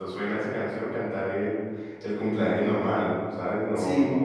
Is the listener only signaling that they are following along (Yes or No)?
Yes